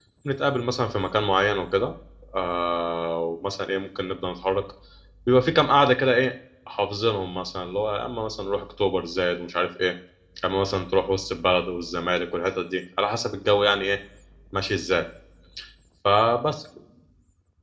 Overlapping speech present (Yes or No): No